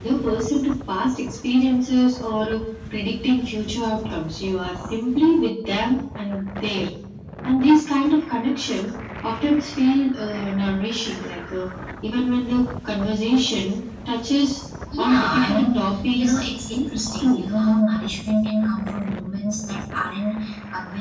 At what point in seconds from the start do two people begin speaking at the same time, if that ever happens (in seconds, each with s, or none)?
15.0 s